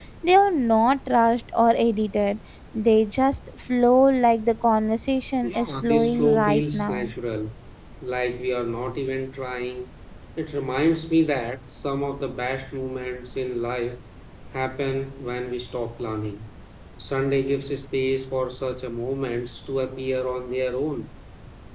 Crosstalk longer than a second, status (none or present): present